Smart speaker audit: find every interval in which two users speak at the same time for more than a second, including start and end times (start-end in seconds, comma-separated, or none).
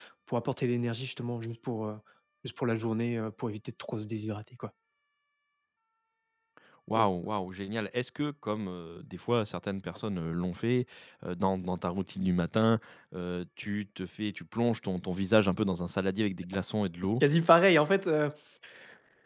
none